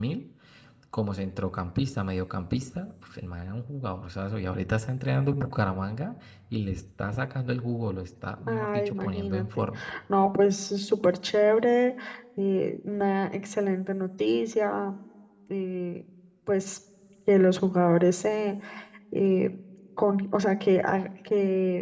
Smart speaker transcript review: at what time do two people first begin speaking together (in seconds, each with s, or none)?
8.4 s